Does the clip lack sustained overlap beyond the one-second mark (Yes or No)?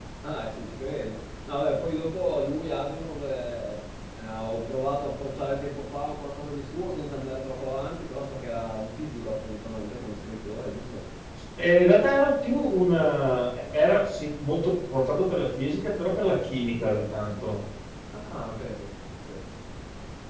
Yes